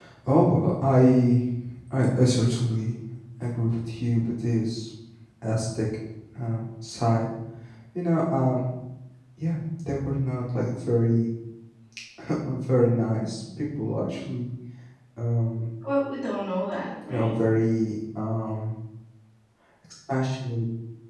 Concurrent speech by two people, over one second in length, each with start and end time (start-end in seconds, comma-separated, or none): none